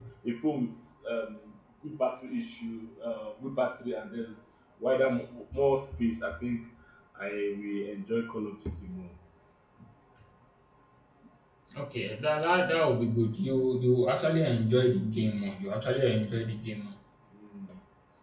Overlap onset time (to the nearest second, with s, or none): none